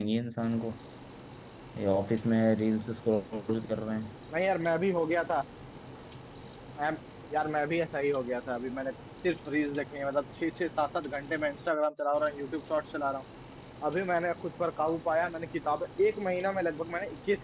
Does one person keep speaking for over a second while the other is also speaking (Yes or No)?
No